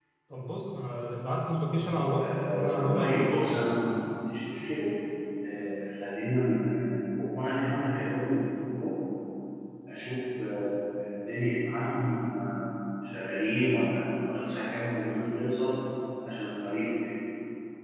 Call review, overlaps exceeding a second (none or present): present